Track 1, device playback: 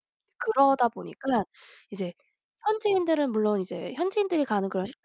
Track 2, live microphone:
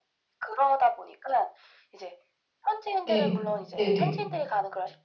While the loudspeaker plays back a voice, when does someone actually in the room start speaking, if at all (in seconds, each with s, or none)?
3.0 s